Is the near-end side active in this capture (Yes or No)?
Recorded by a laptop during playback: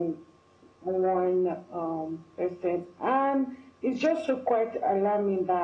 No